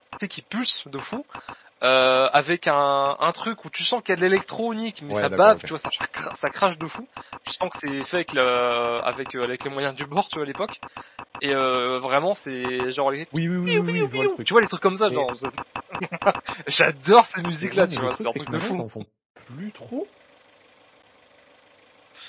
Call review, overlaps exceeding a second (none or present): present